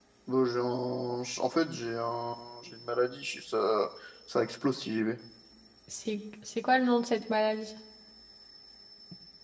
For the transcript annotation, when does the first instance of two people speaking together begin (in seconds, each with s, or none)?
none